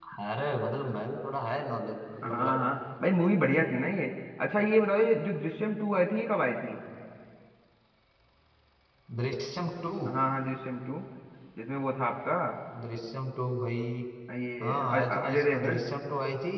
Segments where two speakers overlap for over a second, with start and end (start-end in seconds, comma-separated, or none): 14.6-15.9